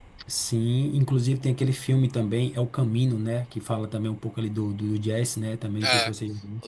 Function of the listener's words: taking over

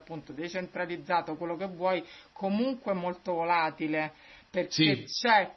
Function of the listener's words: listening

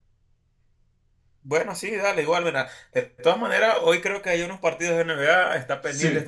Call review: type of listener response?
listening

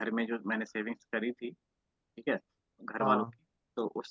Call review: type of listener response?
listening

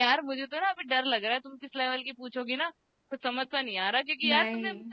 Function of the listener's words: listening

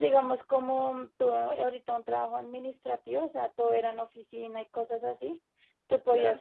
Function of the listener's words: listening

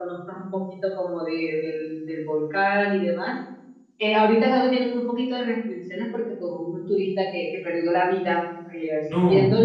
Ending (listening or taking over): listening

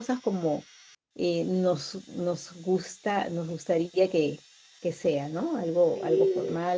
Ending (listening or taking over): taking over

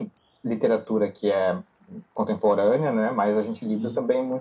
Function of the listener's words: listening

